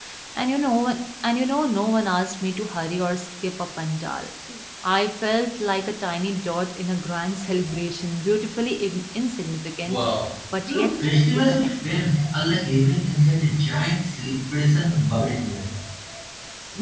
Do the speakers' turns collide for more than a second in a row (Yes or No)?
Yes